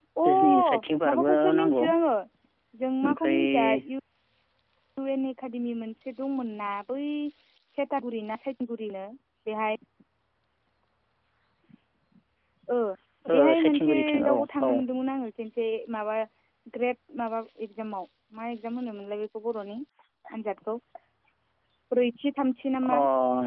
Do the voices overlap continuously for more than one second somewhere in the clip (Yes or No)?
Yes